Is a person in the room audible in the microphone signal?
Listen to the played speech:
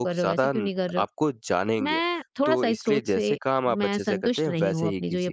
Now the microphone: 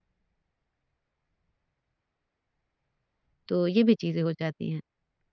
Yes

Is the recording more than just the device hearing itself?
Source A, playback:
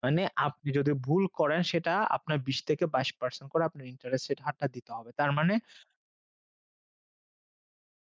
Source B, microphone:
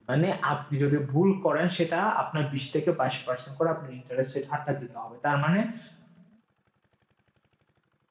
No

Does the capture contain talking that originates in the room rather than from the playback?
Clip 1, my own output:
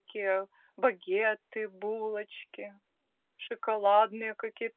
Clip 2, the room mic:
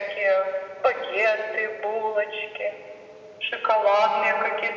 No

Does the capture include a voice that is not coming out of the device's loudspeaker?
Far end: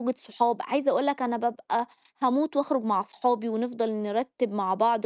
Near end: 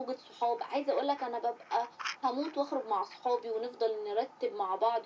No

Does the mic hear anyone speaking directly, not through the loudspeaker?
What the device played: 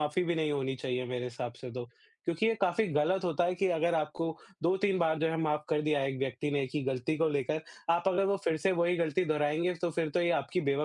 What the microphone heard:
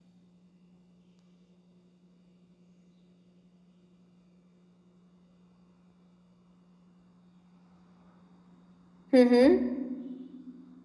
Yes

